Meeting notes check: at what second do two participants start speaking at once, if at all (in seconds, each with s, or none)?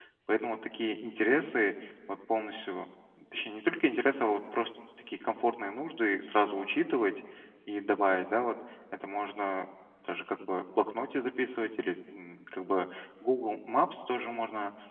none